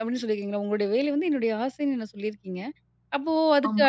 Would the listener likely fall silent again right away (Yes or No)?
Yes